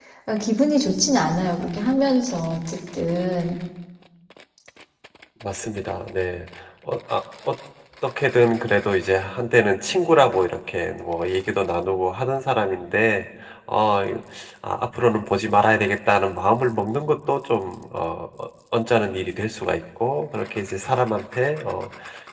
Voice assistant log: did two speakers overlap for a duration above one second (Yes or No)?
No